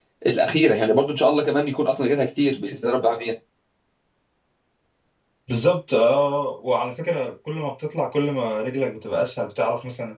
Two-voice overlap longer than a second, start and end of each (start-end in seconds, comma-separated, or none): none